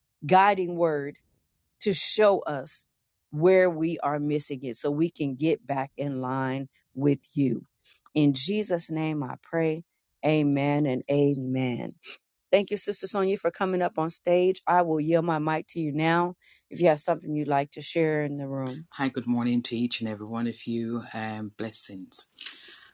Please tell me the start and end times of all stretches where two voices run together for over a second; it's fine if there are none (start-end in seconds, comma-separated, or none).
none